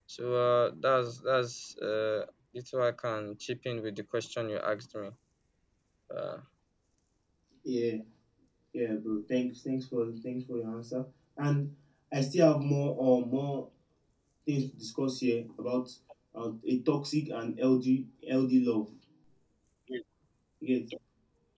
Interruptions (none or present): none